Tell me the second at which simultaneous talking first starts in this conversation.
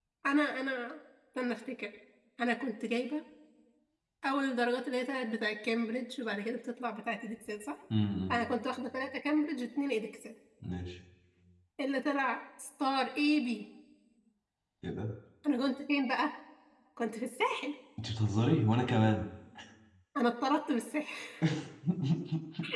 none

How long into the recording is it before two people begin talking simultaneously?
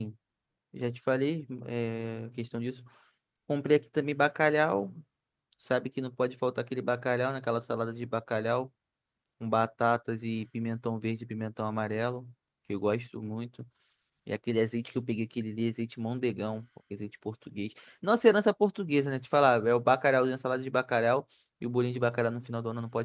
none

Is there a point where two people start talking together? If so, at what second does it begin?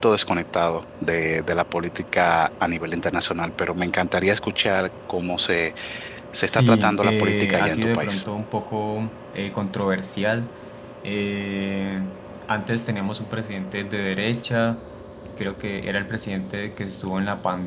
6.5 s

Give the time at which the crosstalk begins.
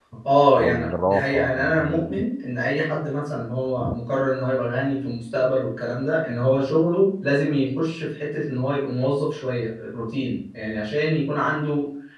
0.6 s

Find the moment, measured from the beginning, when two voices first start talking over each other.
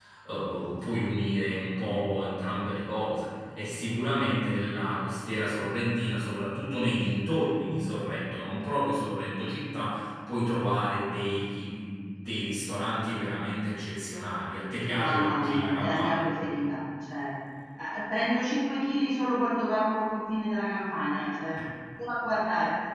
15.0 s

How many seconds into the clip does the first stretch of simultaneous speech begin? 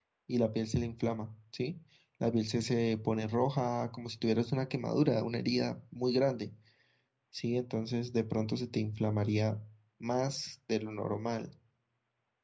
none

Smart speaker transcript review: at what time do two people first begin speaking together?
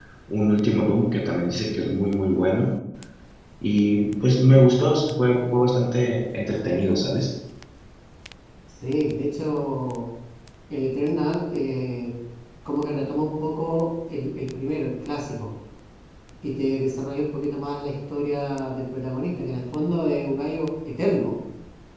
none

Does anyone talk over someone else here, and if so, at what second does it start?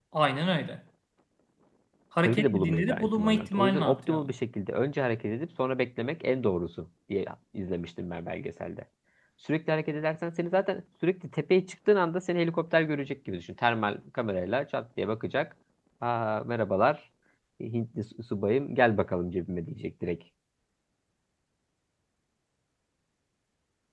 2.2 s

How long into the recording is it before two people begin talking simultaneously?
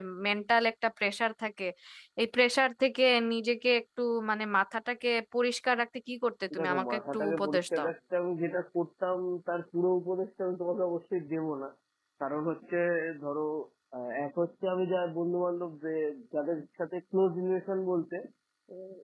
6.5 s

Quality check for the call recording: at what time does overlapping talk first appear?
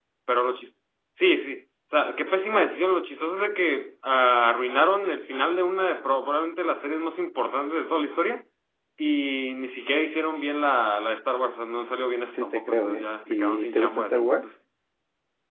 12.3 s

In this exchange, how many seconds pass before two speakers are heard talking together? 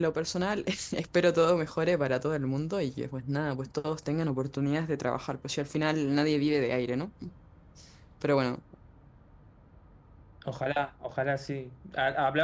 none

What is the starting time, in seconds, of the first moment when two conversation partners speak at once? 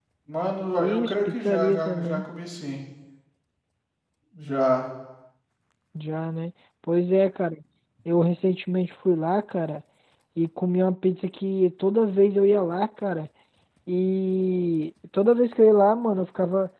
0.8 s

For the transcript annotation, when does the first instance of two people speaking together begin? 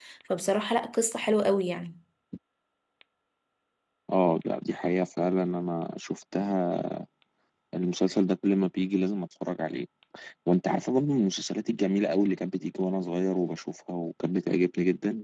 none

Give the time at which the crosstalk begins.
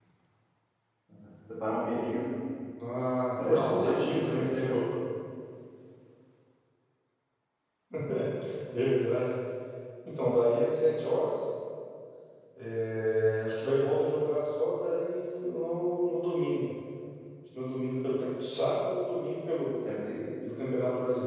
3.5 s

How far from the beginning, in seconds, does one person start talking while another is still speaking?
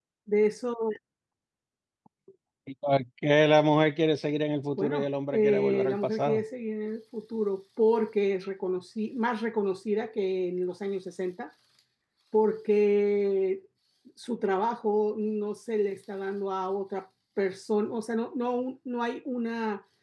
4.8 s

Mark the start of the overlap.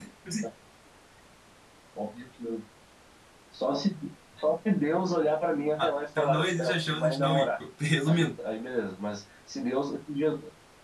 5.8 s

